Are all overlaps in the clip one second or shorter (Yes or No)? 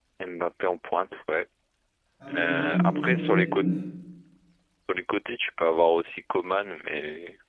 No